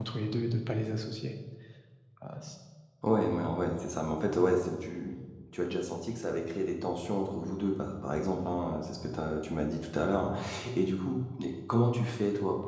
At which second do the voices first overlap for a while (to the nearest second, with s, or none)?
none